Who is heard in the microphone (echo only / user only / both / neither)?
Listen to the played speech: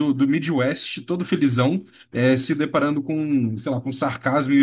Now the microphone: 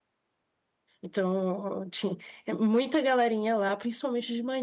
user only